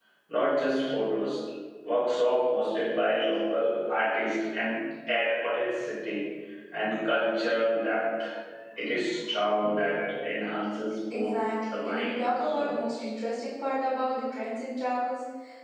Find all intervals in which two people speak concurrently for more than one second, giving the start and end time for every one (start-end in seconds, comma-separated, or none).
11.1-12.8